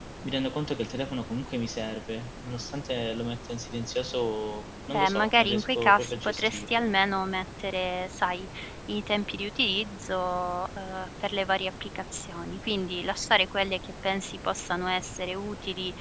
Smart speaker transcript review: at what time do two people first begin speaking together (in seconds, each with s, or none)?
4.9 s